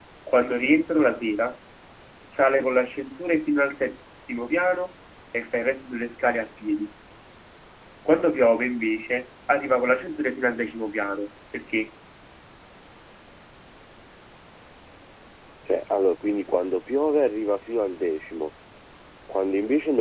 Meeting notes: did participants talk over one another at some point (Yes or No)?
No